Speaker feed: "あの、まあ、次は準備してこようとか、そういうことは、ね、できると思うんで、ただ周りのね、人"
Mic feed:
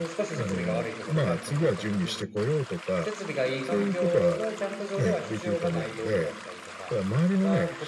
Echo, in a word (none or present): present